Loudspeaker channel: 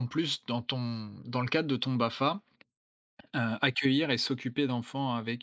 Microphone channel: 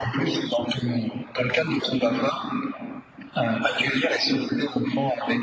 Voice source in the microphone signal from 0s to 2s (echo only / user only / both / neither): echo only